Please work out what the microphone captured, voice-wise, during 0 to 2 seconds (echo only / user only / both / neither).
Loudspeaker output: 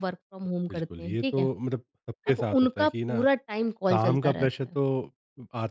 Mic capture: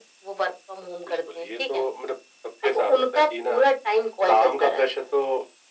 echo only